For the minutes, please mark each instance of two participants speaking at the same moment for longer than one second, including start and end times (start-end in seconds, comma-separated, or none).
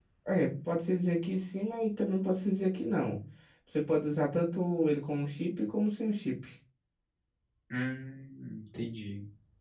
none